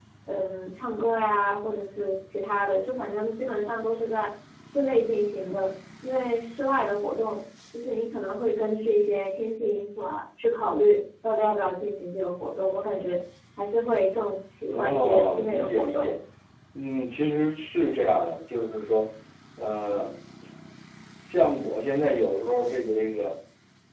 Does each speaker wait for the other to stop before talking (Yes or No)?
No